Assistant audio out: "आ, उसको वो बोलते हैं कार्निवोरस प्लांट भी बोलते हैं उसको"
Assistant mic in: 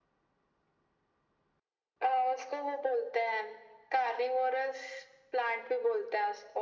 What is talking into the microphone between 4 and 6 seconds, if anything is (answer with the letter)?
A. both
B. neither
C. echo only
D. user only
C